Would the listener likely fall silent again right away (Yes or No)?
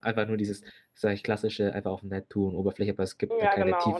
No